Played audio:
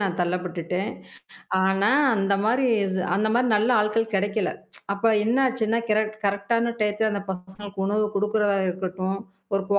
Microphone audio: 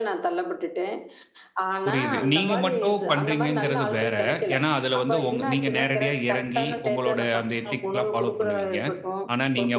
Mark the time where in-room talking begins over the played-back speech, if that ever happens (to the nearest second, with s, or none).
2 s